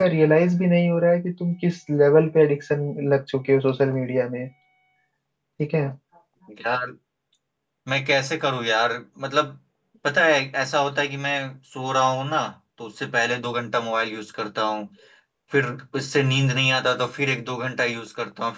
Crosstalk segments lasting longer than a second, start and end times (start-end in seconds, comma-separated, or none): none